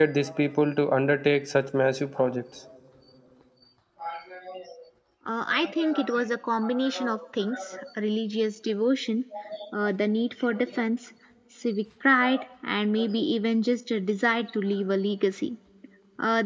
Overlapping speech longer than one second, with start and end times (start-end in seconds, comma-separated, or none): none